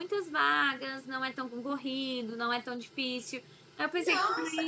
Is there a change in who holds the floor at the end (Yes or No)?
Yes